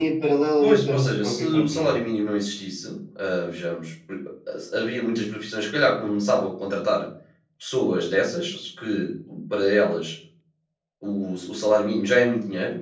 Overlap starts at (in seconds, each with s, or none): 0.6 s